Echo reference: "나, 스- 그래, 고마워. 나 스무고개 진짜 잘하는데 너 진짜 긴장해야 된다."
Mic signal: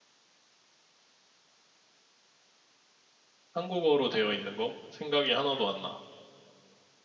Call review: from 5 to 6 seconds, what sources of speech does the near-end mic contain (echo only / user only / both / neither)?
user only